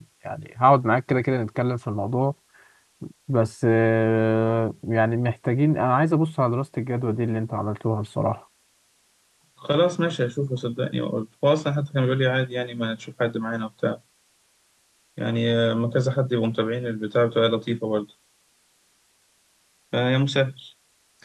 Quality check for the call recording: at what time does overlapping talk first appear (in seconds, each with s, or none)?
none